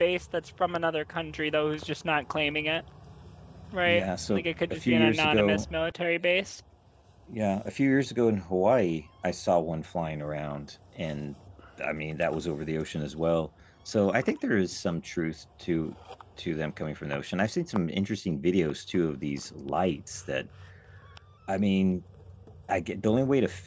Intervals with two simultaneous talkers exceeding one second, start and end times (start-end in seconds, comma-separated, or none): 3.9-5.7